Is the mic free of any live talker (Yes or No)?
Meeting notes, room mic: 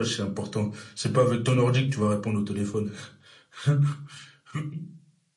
Yes